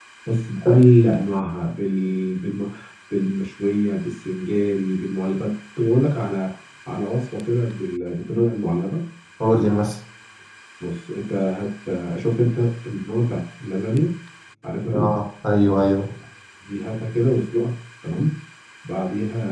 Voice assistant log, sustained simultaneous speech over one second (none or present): none